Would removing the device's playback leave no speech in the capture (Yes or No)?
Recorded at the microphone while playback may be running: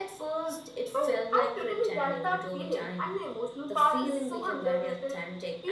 Yes